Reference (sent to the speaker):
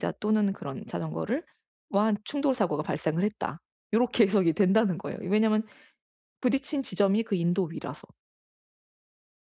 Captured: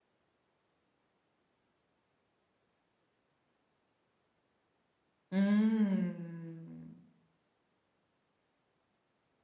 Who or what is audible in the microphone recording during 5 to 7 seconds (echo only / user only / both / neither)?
user only